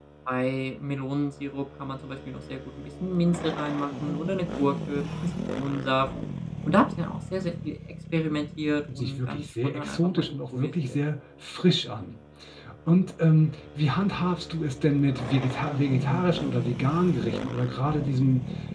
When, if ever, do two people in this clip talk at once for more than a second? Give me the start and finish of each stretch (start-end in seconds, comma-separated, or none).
8.9-11.0